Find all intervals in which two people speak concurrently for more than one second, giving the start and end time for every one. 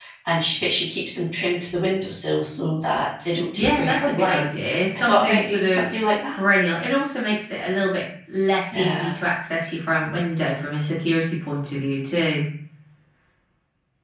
3.6-6.4

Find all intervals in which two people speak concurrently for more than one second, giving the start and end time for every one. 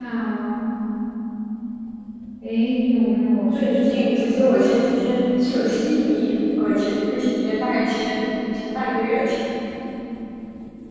3.5-5.4

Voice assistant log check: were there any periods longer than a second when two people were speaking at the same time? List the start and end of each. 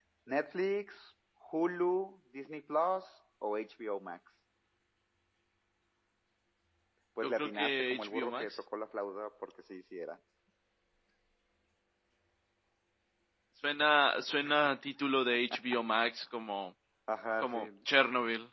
7.2-8.6

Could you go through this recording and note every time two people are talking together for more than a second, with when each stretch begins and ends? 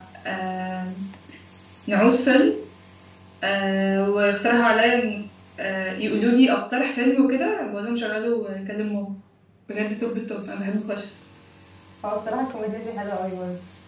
none

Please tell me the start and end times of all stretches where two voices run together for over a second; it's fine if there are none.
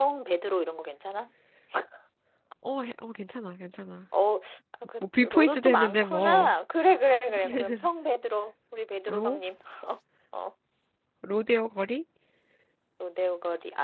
5.0-6.5

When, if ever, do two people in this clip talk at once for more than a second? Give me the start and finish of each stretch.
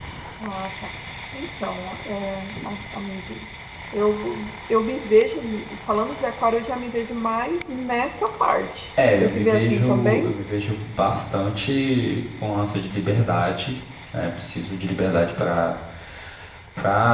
9.1-10.3

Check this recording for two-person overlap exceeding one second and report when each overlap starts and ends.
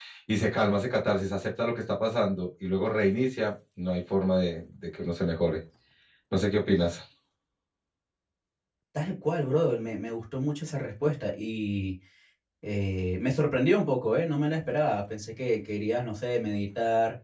none

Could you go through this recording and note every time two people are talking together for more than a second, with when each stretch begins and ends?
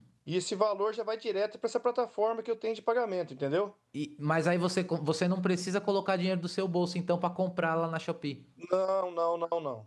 none

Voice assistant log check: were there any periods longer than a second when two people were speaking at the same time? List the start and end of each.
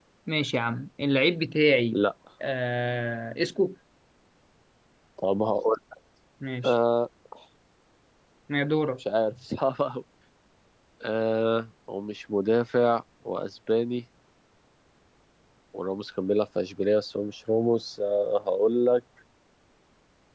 none

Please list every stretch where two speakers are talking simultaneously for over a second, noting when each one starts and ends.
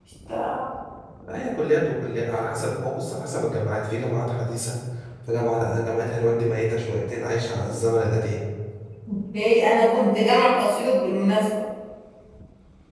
none

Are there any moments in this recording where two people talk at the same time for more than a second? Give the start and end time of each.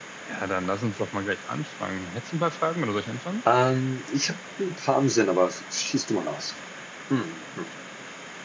none

